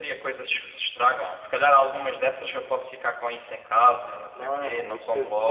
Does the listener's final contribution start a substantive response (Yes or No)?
Yes